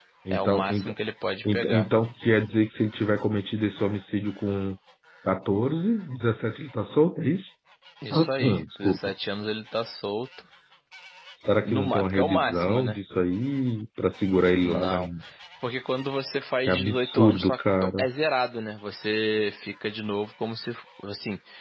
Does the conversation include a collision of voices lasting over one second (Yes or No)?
Yes